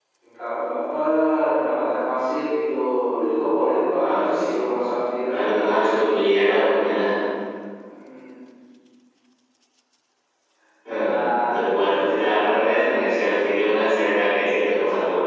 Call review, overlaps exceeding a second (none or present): present